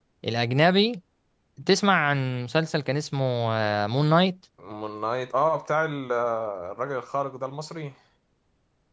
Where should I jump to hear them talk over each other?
none

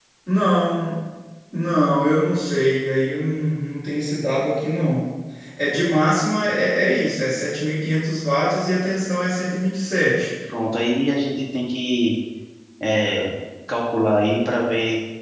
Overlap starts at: none

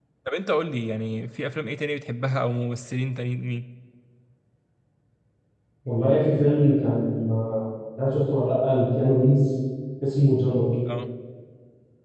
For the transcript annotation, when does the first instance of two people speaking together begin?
none

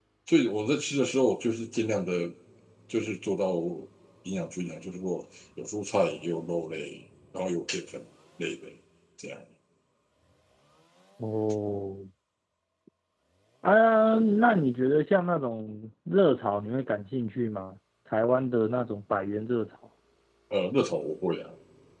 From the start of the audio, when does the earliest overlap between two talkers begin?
none

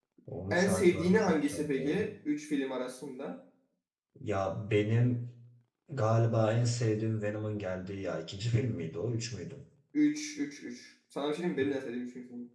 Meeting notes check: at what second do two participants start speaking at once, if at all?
1 s

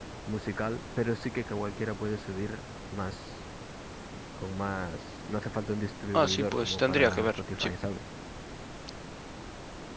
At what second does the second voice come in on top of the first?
6 s

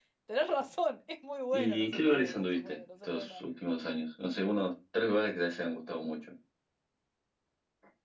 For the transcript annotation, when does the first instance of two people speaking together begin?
2 s

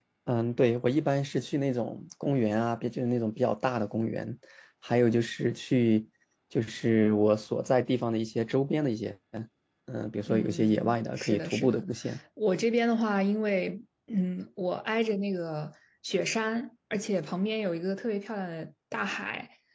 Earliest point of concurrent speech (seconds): 10 s

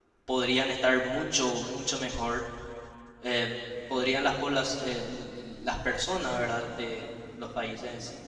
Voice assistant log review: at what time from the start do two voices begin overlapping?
none

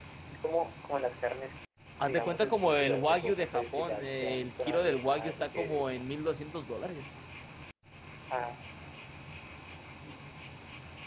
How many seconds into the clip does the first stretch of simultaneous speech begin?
2 s

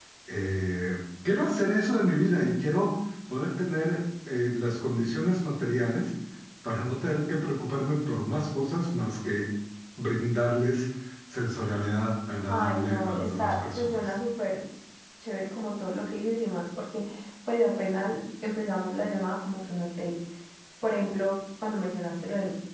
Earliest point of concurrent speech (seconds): 12 s

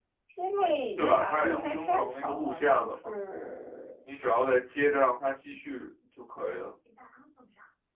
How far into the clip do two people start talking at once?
1 s

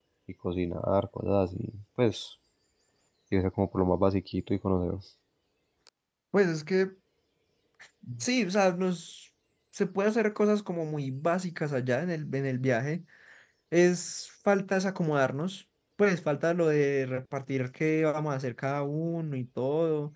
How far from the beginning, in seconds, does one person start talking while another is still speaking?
none

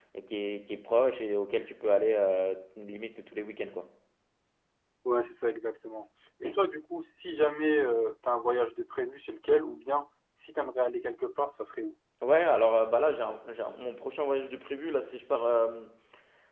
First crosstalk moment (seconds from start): none

